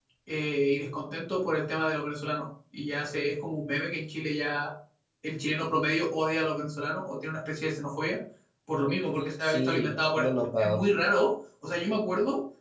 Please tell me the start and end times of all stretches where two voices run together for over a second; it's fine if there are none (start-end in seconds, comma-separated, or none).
9.4-10.9